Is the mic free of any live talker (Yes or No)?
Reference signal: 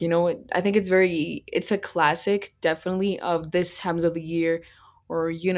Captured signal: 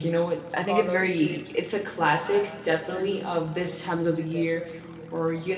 No